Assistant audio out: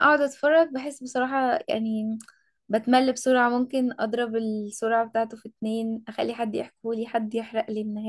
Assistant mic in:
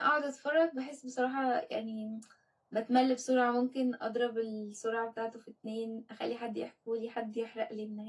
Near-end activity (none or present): none